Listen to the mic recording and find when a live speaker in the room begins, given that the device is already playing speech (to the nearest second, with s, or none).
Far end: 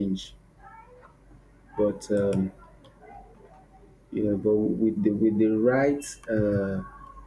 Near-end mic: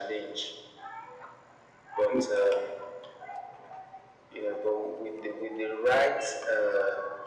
2 s